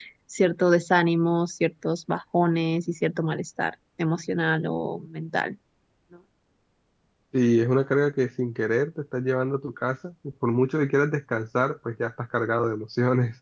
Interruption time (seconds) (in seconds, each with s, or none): none